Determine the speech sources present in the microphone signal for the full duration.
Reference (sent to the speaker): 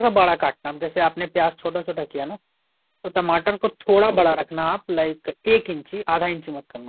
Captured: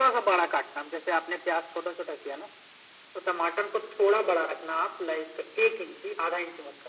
echo only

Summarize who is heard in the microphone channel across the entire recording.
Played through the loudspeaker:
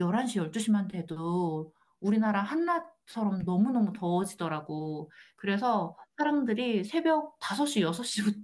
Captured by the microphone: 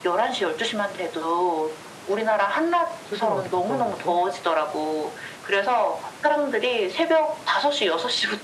both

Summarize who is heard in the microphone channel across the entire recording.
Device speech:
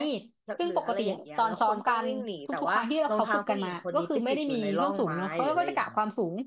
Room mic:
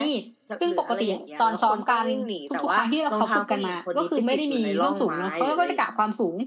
echo only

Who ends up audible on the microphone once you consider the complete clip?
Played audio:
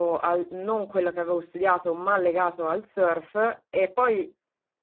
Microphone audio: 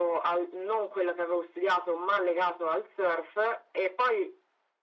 echo only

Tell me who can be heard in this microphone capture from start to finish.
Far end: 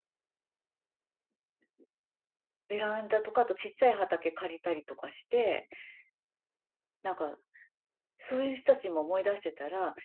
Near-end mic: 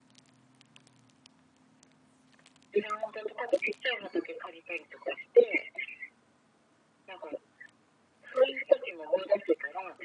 echo only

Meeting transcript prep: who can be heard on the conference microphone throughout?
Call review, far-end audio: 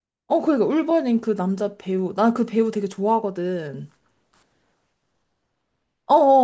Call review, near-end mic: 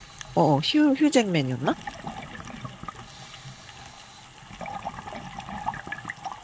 user only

